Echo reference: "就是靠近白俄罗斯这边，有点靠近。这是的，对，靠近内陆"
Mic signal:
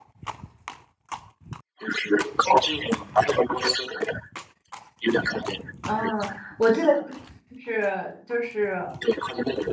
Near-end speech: present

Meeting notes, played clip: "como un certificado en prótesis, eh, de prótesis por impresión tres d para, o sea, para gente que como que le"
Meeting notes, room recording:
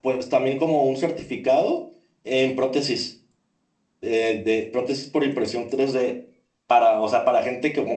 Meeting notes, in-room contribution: none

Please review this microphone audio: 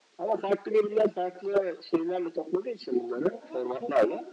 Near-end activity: present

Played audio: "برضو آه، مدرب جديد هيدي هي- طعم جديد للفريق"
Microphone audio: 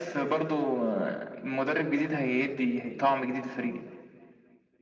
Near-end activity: none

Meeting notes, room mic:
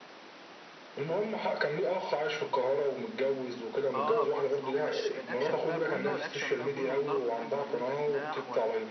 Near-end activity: present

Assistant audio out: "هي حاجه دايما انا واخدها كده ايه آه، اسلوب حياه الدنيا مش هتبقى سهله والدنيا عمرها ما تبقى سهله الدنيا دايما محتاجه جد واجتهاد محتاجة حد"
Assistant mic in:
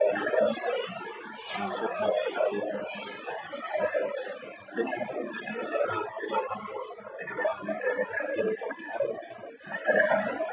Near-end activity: present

